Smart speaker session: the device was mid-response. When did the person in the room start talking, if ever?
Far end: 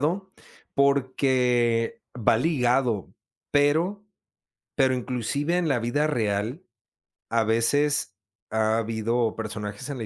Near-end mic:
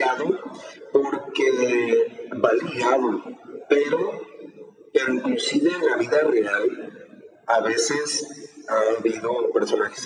none

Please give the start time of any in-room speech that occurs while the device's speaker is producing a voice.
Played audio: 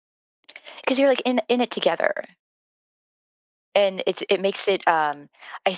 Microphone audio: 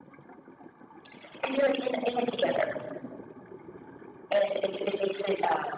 none

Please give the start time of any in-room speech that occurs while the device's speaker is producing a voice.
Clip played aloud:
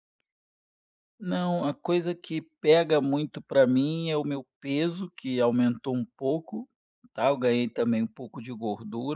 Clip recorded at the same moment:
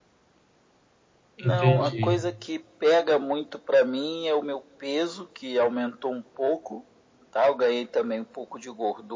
1.4 s

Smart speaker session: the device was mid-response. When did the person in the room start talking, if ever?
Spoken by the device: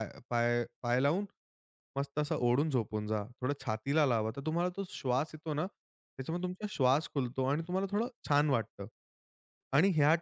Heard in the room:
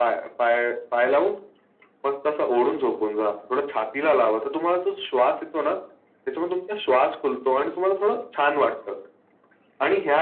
none

